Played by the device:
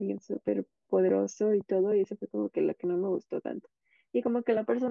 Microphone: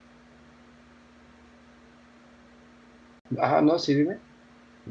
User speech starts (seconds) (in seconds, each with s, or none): 3.4 s